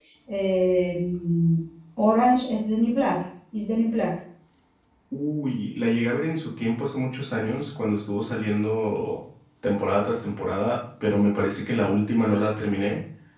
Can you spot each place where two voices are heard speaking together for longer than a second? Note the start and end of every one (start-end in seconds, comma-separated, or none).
none